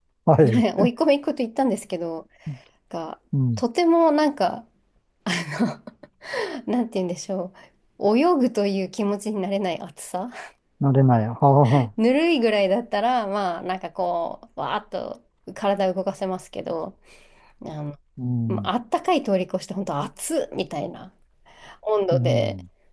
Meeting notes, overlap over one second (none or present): none